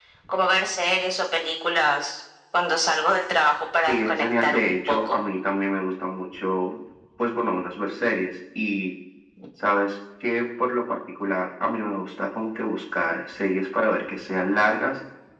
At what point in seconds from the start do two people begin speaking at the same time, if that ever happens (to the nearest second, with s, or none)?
4 s